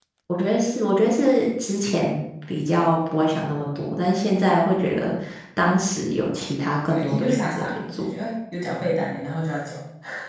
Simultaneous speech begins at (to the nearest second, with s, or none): 7 s